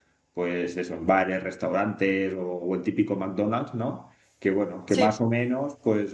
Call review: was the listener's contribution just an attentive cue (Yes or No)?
Yes